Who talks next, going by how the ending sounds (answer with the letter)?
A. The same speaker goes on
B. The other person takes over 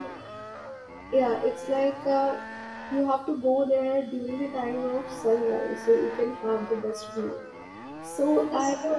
B